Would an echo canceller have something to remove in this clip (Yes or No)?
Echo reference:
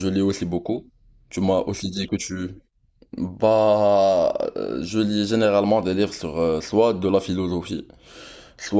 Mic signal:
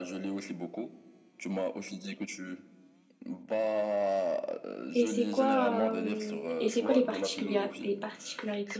Yes